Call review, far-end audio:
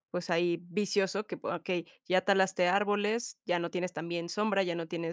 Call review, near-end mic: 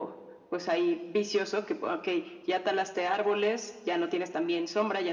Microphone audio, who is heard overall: echo only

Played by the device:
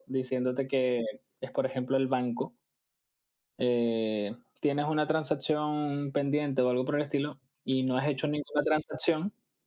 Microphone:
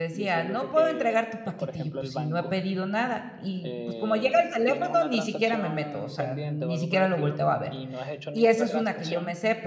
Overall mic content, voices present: both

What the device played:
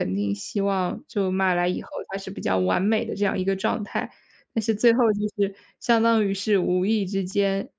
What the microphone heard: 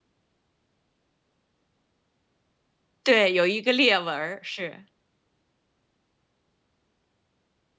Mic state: user only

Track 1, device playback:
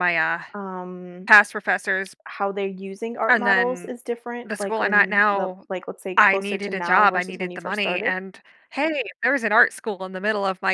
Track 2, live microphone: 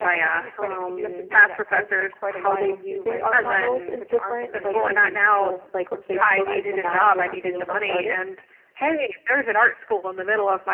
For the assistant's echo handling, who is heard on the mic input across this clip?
both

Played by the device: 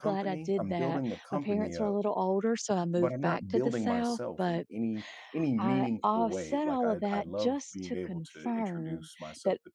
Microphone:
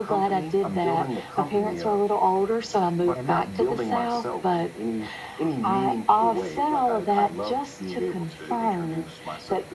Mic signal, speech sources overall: echo only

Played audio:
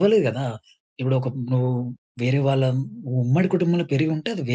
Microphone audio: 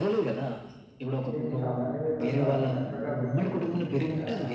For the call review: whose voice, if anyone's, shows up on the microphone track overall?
both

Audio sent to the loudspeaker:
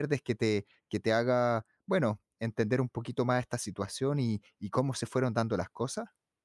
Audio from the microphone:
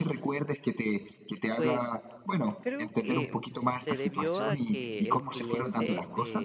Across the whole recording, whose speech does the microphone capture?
both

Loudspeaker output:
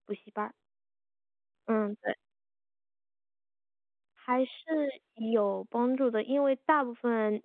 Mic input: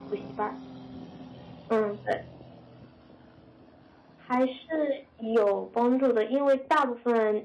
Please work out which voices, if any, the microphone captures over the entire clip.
echo only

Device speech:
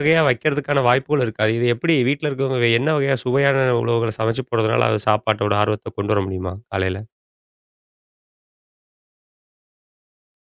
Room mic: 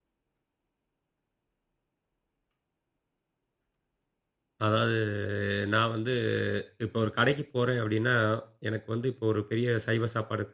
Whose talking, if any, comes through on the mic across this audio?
user only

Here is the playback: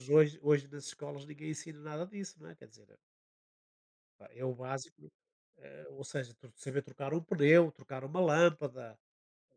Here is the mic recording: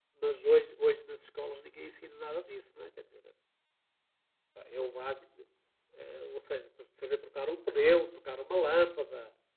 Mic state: echo only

